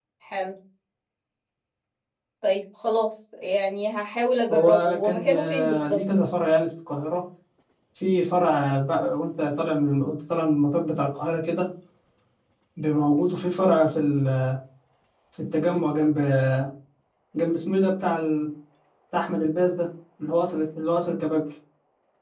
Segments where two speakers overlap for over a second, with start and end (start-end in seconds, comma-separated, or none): 4.5-6.0